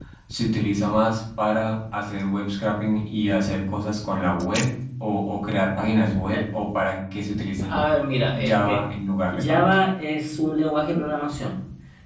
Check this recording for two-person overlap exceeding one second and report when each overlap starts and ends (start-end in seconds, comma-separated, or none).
none